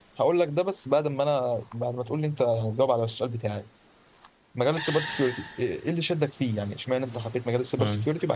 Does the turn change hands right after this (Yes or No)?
No